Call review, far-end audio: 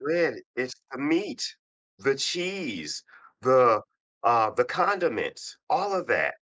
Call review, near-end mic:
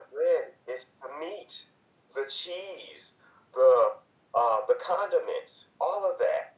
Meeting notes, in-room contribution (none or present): none